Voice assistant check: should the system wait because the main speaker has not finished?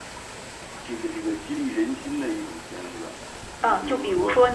No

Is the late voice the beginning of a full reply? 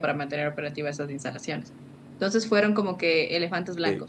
No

